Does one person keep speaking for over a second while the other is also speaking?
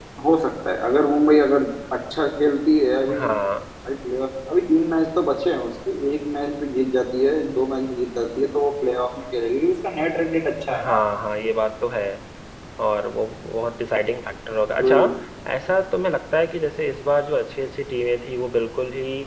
No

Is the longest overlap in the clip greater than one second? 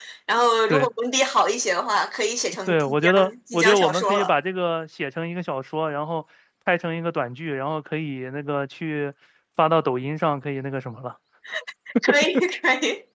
Yes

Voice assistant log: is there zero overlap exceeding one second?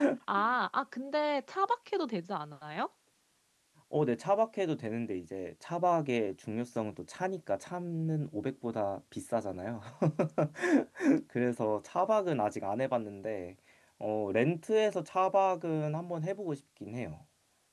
Yes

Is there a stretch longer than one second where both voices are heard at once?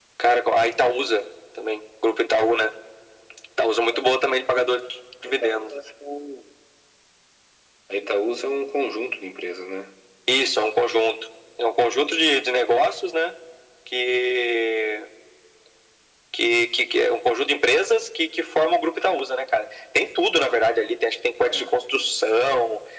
No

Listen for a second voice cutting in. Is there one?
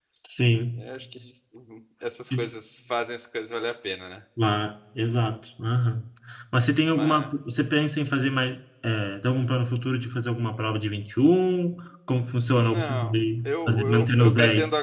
Yes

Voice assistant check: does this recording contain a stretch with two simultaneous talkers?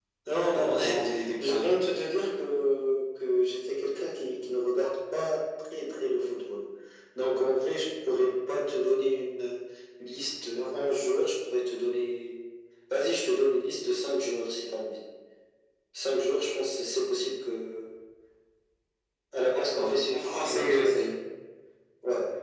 Yes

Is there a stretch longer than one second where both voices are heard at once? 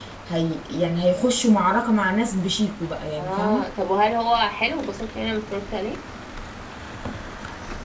No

